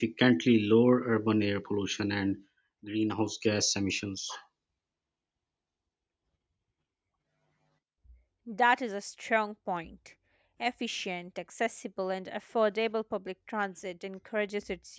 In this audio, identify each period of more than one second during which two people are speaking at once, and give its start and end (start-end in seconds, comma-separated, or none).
none